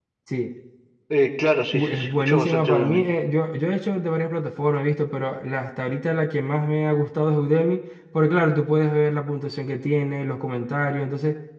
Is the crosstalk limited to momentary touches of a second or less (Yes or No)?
No